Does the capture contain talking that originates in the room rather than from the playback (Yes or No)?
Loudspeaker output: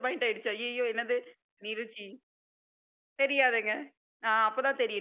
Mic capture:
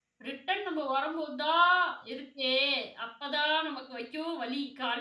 Yes